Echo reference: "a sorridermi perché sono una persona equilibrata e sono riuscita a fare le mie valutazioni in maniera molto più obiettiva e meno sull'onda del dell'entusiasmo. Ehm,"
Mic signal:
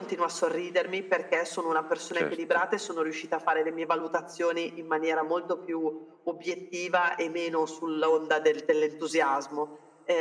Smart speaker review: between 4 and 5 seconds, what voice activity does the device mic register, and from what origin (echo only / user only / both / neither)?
echo only